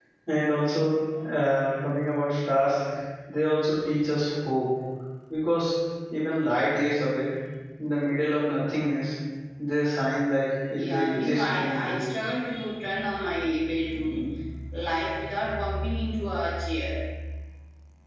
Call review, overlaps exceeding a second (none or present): present